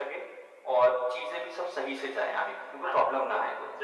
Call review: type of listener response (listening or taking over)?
taking over